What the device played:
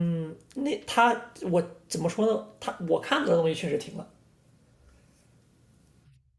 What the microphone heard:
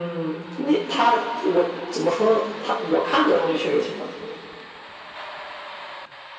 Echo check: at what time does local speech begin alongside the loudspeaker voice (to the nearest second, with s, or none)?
none